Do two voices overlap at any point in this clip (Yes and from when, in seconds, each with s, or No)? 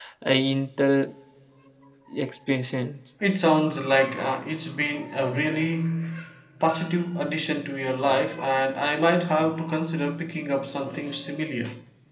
No